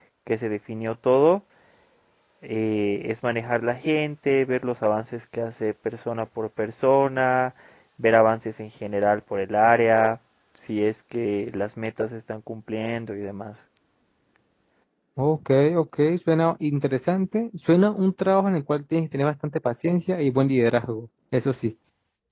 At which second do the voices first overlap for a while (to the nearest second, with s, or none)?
none